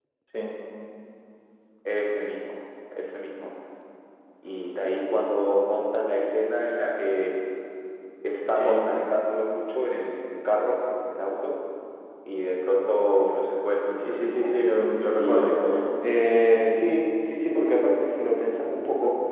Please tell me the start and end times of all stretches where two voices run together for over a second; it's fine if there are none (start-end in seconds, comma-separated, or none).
14.0-15.5